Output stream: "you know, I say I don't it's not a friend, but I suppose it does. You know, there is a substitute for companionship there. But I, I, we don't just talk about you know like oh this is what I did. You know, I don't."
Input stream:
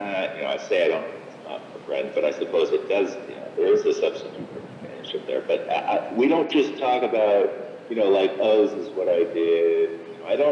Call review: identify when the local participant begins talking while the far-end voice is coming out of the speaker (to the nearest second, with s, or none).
none